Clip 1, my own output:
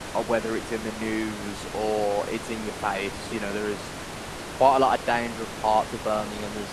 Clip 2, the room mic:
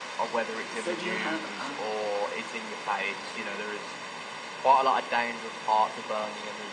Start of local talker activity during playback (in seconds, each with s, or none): 0.7 s